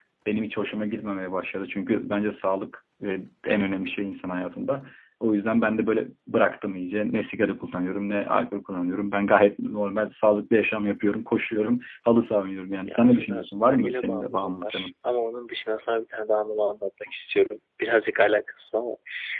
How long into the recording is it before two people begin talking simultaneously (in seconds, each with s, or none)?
12.9 s